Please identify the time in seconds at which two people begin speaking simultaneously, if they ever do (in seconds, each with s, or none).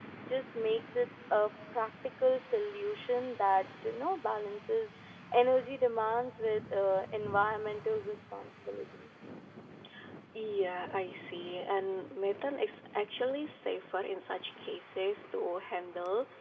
none